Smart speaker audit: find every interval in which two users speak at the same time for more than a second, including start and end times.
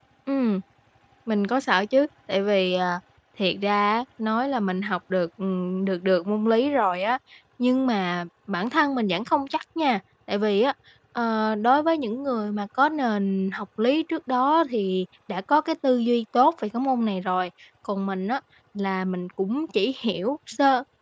none

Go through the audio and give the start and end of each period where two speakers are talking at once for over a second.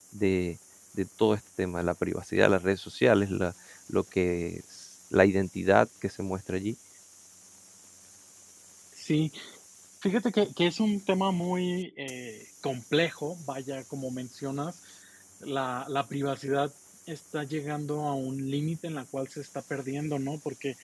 none

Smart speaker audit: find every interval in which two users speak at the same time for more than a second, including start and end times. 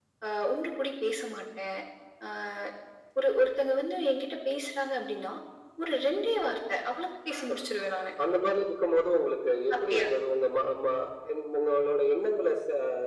none

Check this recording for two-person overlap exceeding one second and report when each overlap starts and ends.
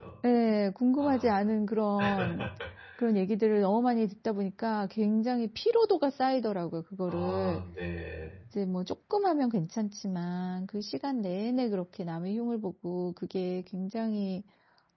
none

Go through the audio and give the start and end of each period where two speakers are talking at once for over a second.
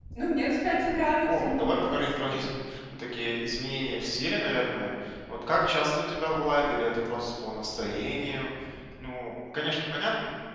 0.6-2.3

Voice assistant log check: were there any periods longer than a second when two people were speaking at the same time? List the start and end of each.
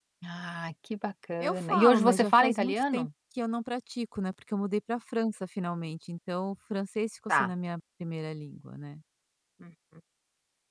1.4-3.1

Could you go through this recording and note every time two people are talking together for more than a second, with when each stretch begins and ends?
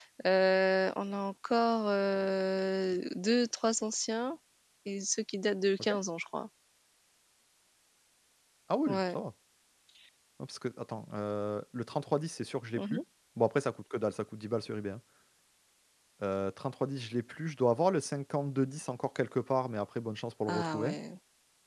none

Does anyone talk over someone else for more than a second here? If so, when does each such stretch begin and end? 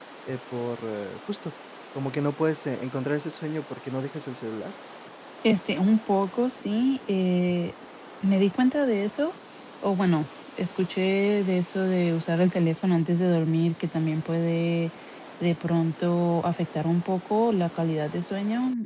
none

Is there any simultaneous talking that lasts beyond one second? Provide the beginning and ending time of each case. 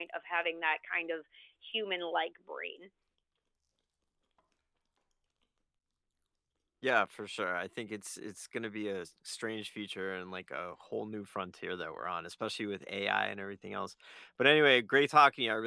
none

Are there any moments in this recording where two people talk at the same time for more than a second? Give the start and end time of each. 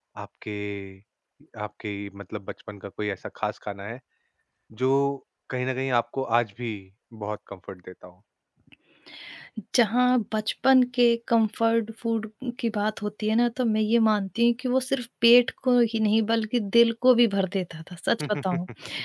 none

